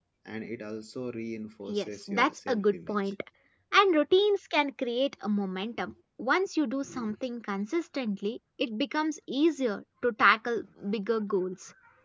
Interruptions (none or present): present